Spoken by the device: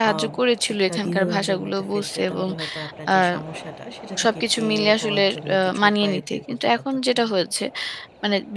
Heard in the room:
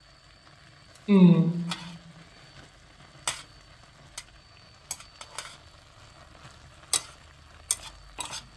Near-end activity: present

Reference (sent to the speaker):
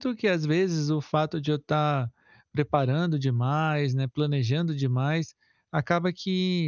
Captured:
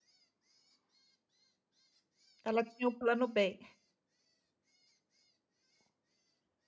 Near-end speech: present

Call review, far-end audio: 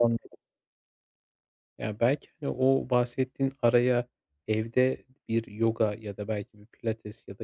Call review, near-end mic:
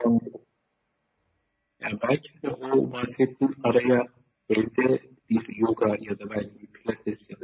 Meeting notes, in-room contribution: none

